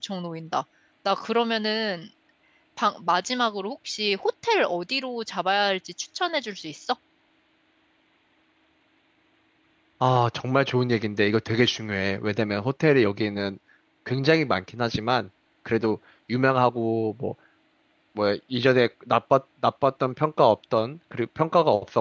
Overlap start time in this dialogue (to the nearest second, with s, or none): none